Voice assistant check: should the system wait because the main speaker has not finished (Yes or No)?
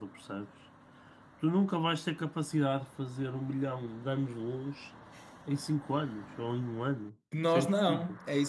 No